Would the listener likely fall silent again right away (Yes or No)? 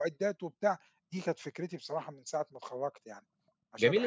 No